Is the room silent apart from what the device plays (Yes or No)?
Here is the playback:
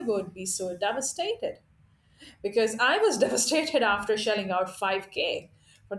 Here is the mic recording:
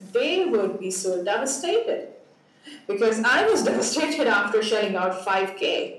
Yes